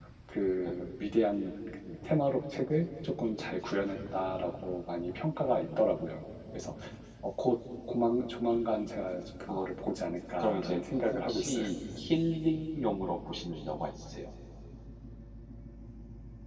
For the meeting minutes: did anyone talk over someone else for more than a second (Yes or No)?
Yes